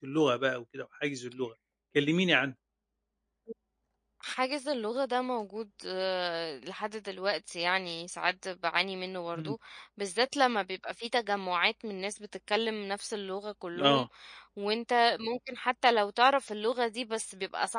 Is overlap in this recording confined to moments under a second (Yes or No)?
Yes